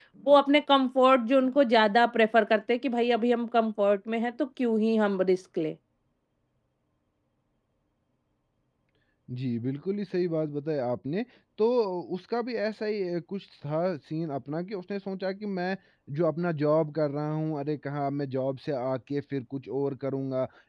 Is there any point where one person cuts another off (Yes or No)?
No